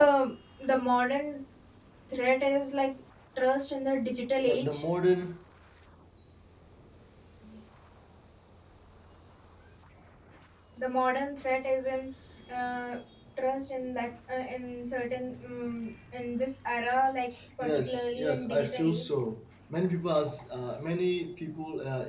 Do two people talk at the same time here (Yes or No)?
Yes